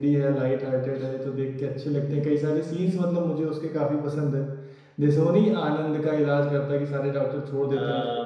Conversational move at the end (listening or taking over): taking over